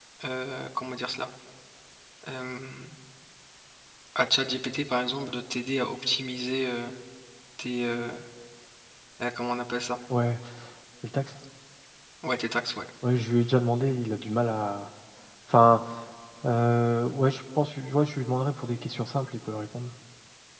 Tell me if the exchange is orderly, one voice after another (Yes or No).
Yes